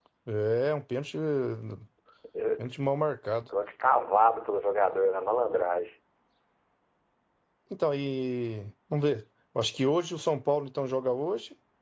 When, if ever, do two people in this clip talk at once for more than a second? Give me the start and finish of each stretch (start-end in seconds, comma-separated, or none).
none